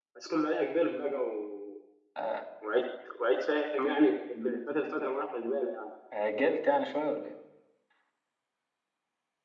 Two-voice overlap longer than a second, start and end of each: none

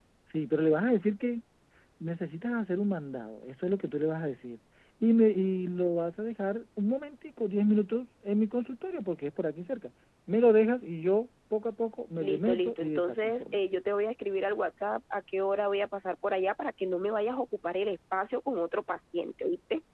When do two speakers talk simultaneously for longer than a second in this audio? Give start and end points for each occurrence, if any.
12.2-13.6

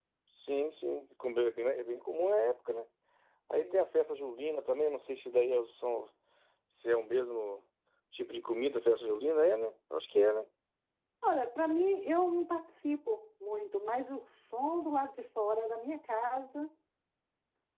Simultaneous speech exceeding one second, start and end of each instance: none

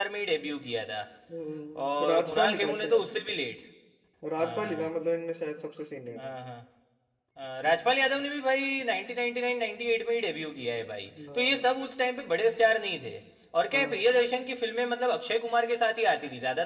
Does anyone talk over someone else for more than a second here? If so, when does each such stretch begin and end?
1.9-3.1

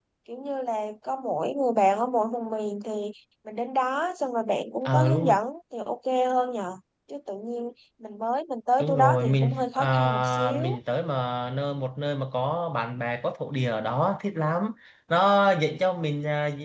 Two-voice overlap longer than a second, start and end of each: 8.8-10.8

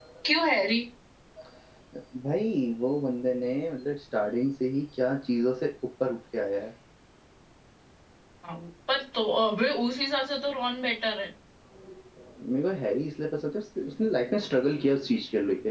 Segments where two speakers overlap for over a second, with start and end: none

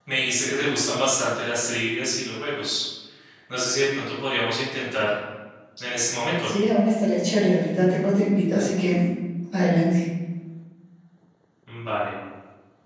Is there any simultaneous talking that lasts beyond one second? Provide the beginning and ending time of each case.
none

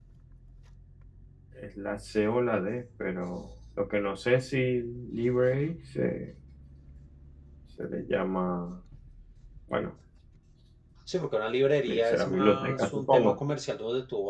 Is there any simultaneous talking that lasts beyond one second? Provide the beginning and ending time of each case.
11.9-13.4

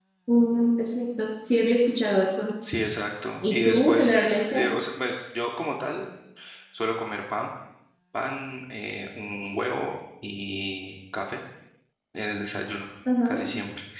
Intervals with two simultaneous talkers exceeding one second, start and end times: 3.4-4.6

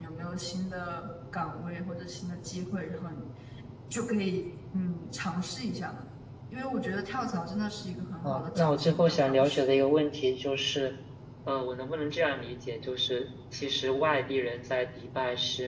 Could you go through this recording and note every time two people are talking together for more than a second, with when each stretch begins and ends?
8.2-9.7

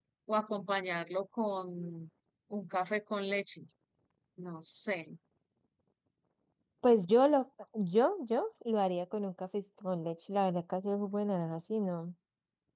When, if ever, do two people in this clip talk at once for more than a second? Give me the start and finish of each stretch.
none

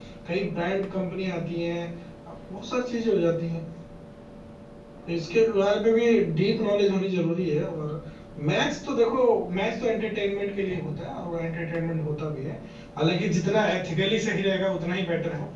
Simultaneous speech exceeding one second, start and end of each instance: none

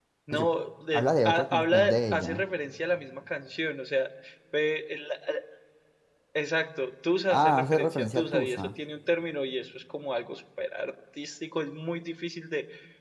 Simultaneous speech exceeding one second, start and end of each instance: 0.9-2.4, 7.3-8.7

